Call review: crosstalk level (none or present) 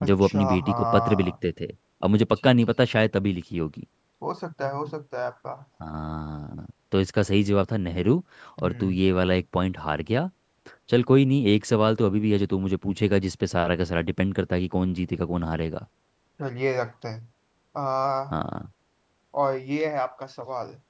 present